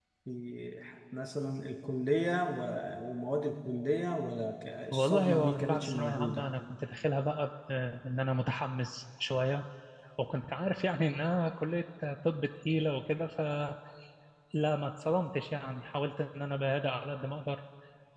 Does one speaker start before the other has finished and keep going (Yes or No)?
Yes